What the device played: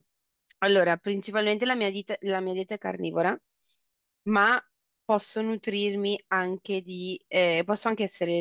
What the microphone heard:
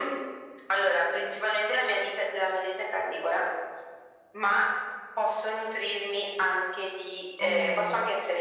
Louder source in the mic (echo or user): echo